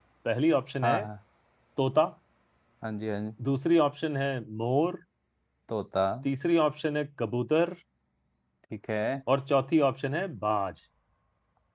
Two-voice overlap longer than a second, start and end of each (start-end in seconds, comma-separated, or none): none